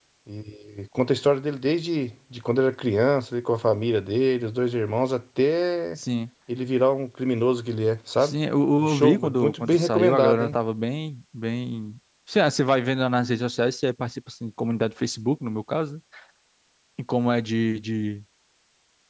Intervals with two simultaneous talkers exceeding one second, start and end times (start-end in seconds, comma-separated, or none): 8.8-10.5